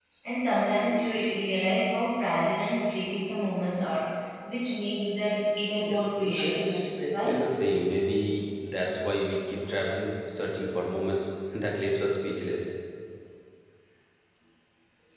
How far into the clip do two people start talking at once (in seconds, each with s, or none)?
5.8 s